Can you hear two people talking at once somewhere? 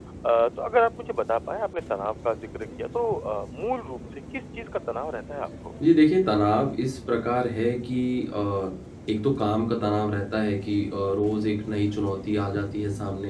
No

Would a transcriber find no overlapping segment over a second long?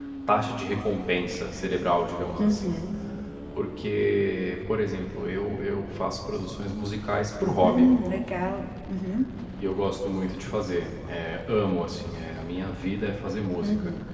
Yes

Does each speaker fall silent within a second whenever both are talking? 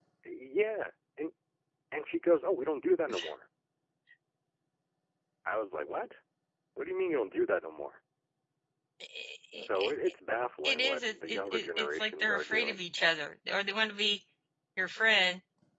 No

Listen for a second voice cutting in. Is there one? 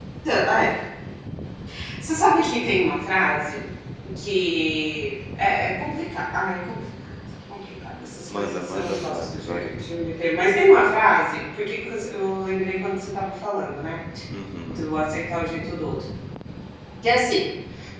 Yes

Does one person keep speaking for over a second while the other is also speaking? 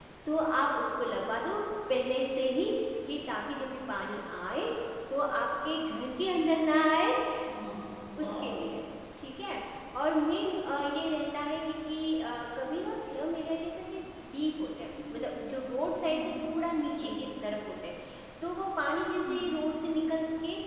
No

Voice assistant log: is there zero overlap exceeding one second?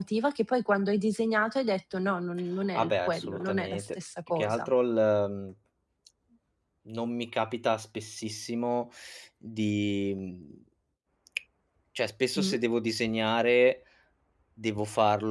No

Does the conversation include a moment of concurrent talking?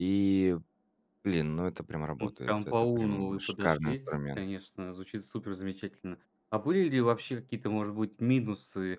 Yes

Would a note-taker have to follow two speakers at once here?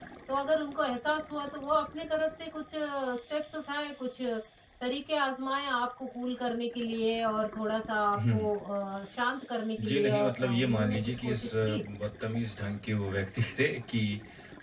Yes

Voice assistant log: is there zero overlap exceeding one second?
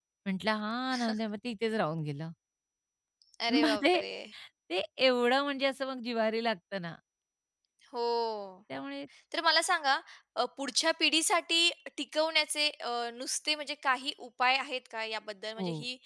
Yes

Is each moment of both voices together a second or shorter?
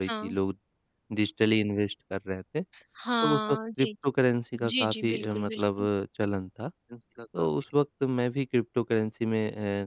No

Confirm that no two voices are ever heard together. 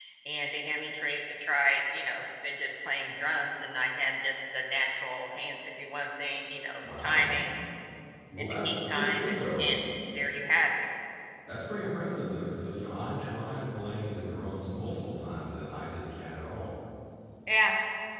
No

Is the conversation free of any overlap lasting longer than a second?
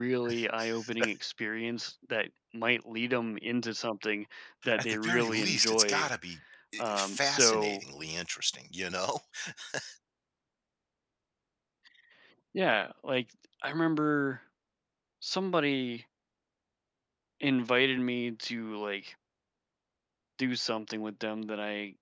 No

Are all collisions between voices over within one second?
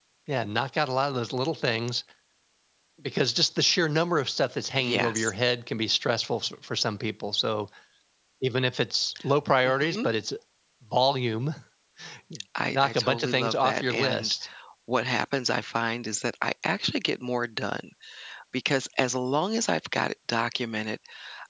No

